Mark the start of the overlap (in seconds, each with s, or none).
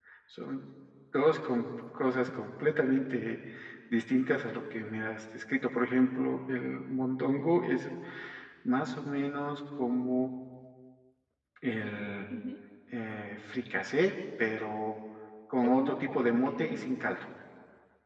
15.6 s